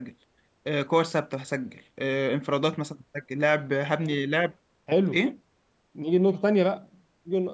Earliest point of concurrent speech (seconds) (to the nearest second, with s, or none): none